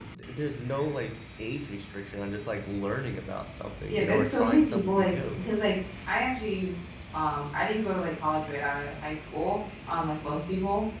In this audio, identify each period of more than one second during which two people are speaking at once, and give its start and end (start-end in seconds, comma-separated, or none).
3.9-5.4